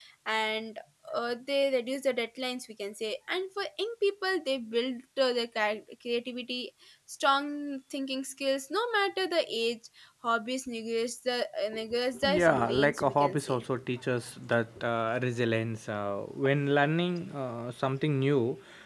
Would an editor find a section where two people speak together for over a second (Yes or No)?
Yes